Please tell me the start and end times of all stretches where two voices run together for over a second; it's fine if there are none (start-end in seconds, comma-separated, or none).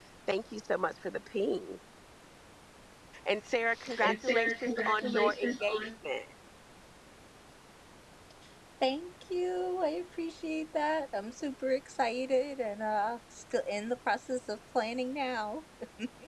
4.0-5.8